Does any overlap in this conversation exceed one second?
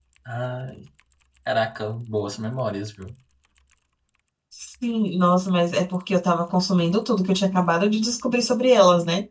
No

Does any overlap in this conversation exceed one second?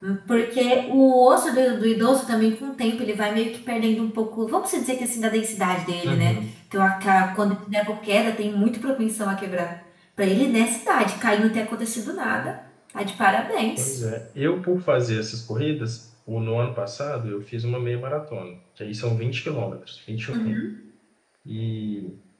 No

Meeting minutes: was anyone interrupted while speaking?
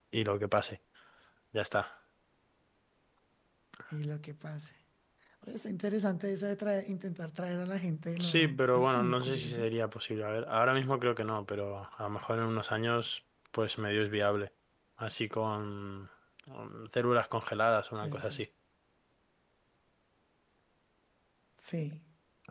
Yes, from 8.2 s

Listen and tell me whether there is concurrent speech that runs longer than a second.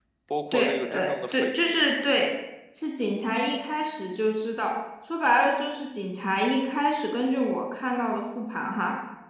Yes, from 0.5 s

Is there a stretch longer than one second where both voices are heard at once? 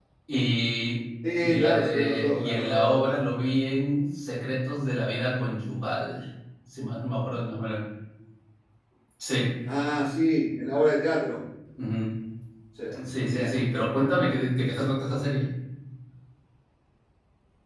Yes, from 1.4 s

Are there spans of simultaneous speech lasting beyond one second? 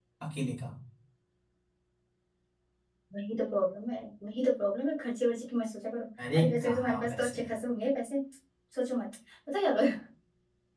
Yes, from 6.2 s

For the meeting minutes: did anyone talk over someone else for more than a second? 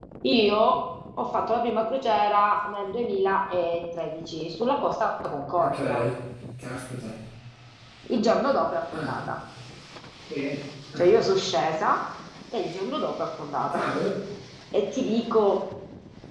No

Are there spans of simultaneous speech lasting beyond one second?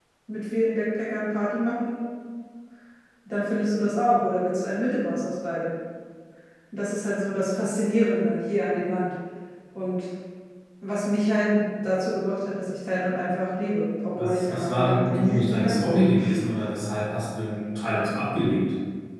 Yes, from 14.2 s

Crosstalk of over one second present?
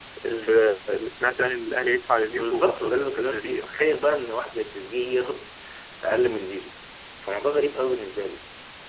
Yes, from 2.3 s

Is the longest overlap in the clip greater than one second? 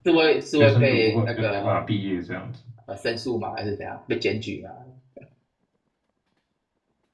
Yes, from 0.6 s

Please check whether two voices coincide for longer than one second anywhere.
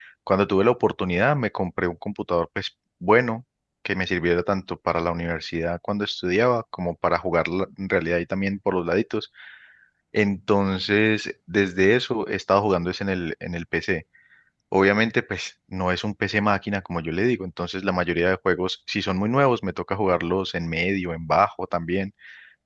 No

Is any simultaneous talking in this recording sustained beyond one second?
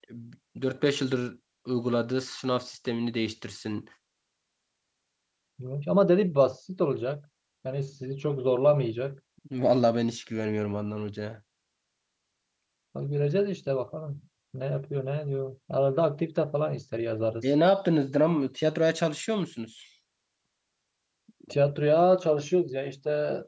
No

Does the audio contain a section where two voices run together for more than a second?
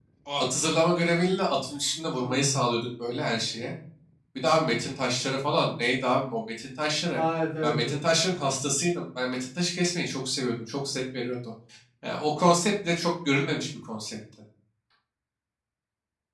No

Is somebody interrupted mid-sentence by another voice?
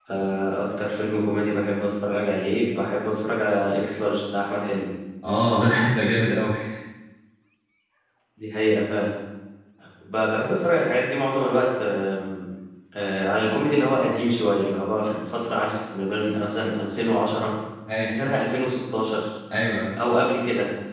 No

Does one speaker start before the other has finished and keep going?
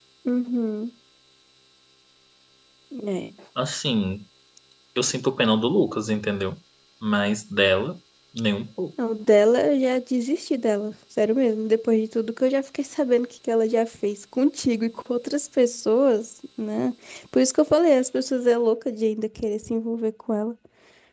No

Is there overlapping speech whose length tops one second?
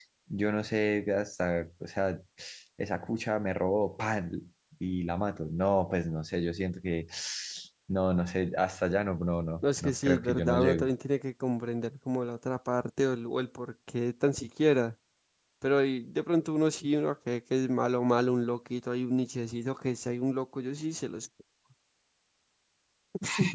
Yes, from 9.6 s

